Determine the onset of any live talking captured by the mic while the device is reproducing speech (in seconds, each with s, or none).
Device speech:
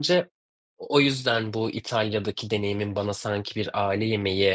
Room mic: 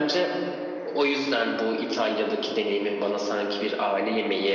none